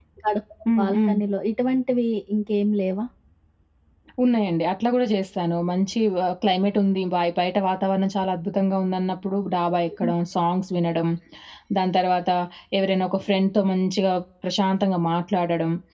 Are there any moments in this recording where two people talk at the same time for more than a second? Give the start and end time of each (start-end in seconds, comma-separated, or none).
none